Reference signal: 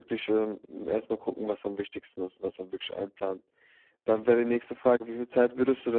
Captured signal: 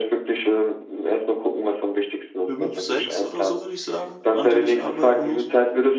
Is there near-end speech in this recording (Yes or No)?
Yes